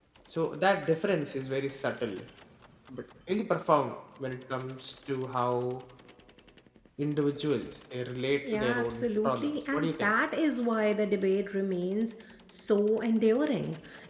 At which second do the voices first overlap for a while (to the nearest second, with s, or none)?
8 s